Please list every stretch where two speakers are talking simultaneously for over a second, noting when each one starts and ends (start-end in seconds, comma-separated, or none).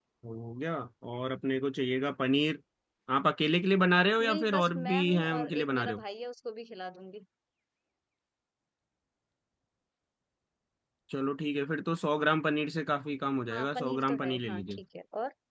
4.2-6.0, 13.5-14.8